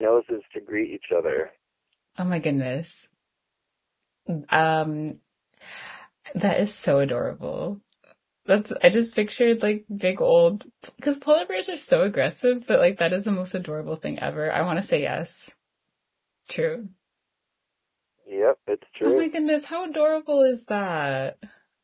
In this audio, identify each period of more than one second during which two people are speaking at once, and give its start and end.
none

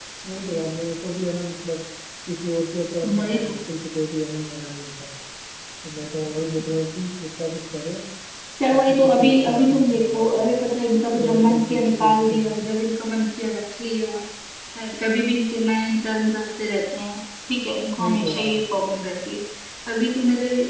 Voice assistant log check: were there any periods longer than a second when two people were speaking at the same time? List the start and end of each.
8.7-10.5, 11.2-12.4

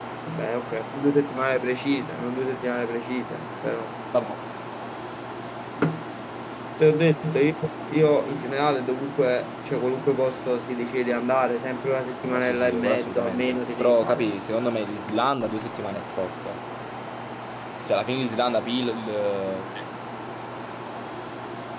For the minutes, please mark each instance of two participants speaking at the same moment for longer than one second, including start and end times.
12.2-14.3

